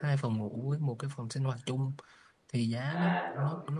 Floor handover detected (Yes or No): No